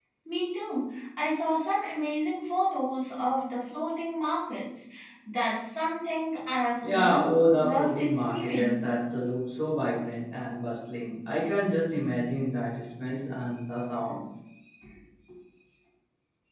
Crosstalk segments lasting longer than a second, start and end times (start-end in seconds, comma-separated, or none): 6.8-8.9